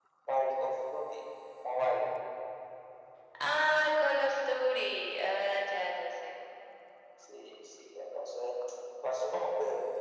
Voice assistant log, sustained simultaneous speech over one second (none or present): none